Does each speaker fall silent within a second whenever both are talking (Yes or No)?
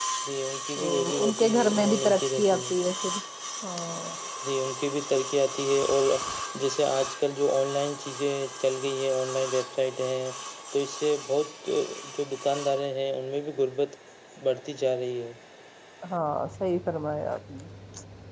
No